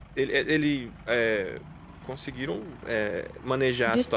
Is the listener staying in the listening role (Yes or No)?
Yes